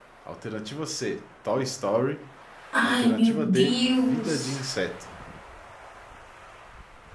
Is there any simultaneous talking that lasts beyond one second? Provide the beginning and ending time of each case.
2.8-4.6

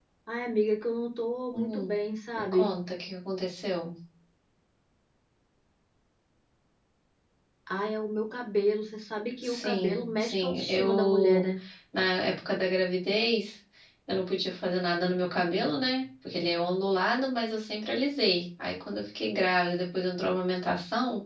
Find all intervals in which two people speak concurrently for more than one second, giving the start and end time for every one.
9.4-11.4

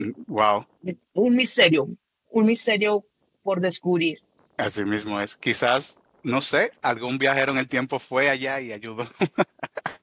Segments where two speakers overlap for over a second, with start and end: none

